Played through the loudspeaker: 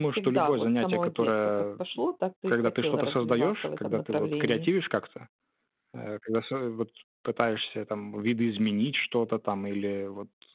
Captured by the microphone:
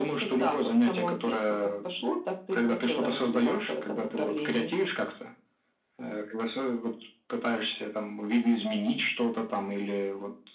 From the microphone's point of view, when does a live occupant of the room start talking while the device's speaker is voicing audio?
none

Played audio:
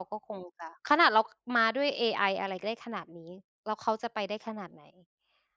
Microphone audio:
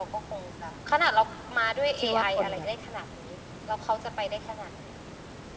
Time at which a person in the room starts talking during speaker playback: 2.0 s

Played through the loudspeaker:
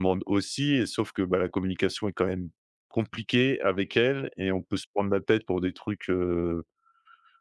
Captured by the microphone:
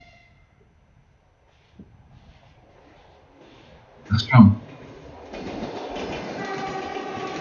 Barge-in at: 4.1 s

